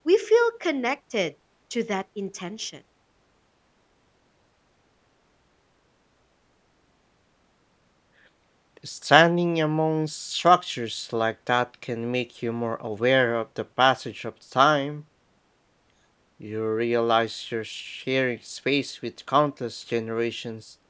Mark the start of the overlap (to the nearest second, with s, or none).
none